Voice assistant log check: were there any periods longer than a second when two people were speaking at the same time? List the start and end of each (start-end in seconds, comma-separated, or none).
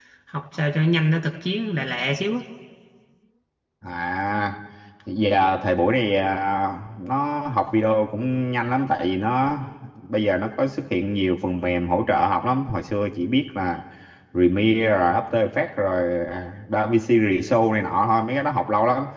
none